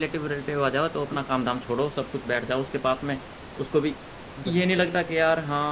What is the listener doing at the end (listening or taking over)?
listening